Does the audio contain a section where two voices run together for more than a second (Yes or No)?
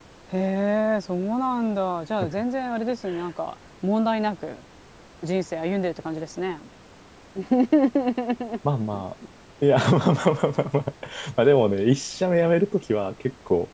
No